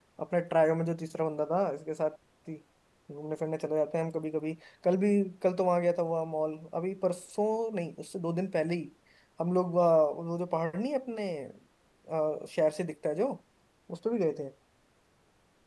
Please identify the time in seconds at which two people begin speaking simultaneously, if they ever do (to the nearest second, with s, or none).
none